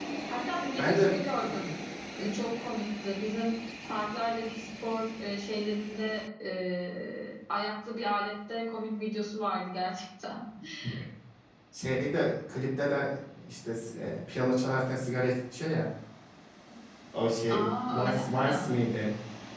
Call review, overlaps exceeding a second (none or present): present